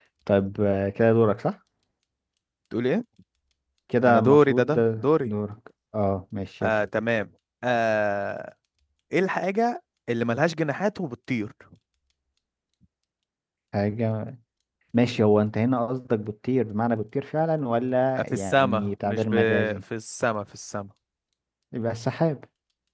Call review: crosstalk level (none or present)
present